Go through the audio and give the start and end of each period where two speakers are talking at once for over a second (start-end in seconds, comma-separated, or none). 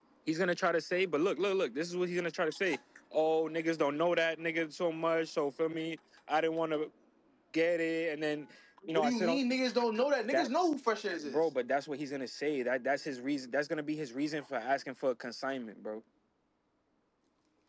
none